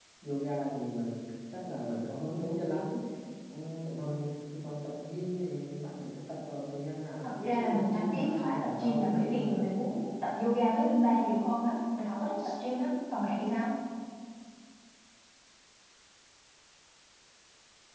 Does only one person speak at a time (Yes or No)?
No